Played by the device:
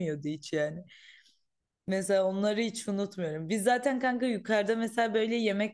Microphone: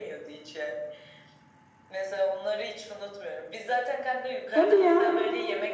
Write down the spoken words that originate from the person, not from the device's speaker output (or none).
Hadi ya.